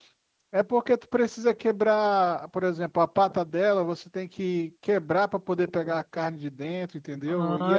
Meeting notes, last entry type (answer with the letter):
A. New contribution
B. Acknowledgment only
A